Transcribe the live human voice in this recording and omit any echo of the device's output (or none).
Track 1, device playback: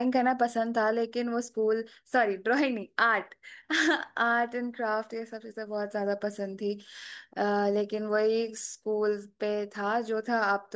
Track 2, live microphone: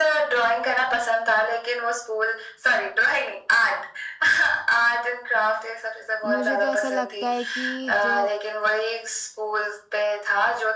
मुझे तो ऐसा लगता है कि जो